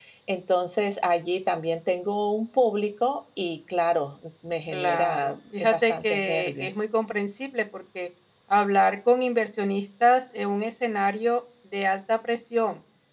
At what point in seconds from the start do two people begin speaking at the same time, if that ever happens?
4.7 s

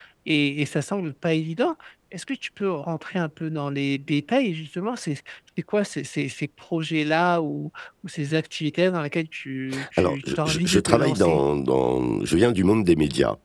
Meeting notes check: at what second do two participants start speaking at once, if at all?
9.7 s

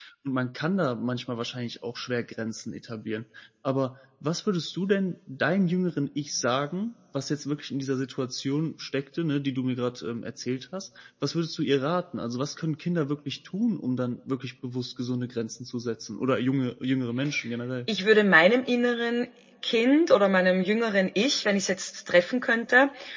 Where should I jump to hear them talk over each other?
none

